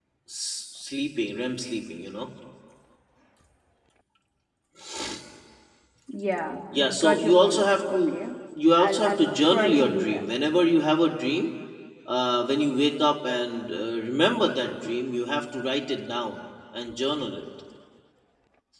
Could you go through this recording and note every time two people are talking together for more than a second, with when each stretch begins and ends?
7.0-8.2, 8.7-10.2

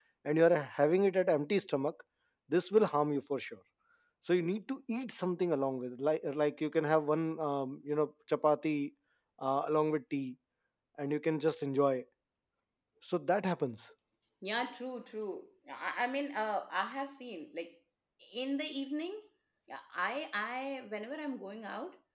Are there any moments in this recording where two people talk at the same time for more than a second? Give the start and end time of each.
none

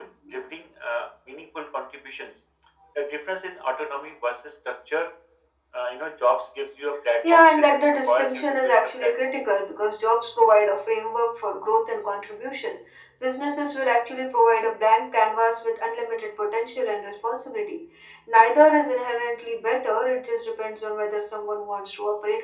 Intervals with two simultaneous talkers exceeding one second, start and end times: 7.3-9.1

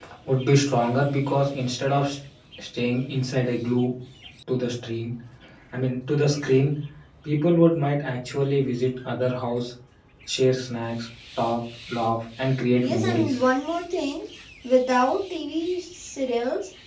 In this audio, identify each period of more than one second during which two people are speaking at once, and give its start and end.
none

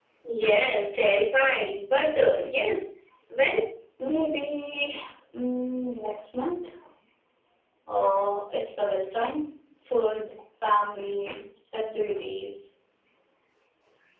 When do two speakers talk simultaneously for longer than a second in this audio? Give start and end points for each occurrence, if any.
none

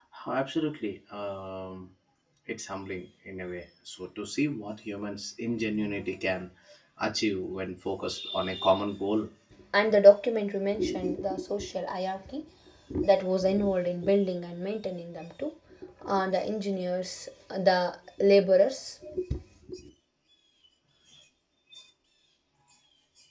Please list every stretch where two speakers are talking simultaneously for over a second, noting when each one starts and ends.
none

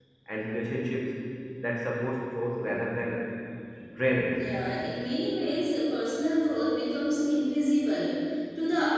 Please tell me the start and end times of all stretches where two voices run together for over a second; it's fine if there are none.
none

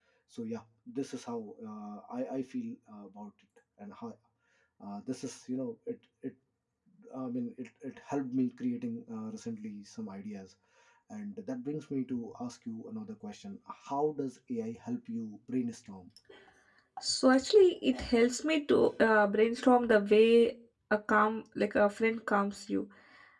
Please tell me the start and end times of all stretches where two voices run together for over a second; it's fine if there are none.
none

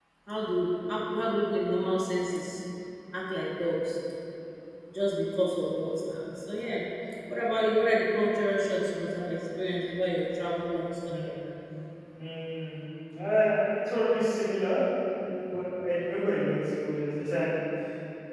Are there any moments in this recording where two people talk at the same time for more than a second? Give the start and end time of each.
none

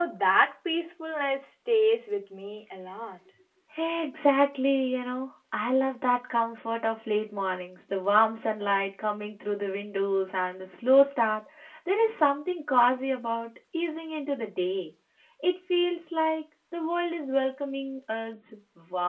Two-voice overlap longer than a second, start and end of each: none

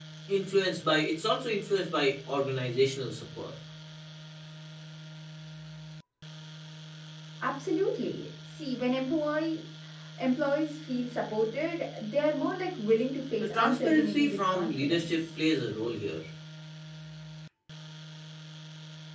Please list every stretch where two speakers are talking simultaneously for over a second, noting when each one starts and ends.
13.5-15.2

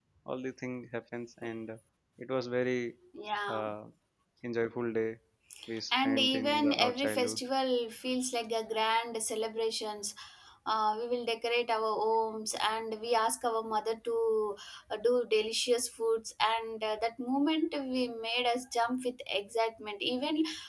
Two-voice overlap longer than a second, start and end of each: 5.9-7.4

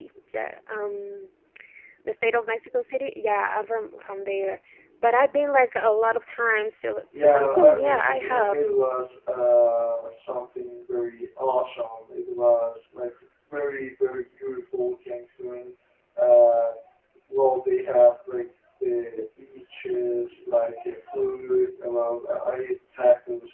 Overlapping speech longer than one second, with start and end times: 7.2-8.6

